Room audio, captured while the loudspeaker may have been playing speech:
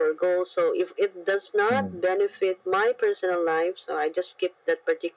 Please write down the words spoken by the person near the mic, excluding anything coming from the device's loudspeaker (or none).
mm.